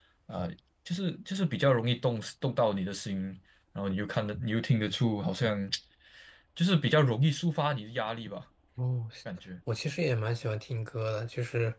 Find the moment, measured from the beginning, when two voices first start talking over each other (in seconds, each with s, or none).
none